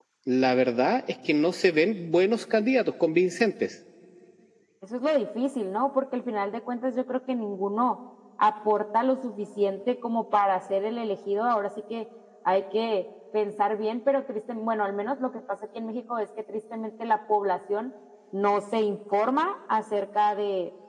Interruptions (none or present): none